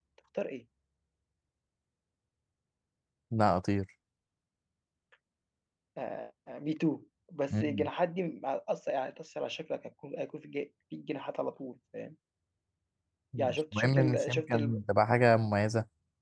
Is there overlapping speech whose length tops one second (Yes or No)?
Yes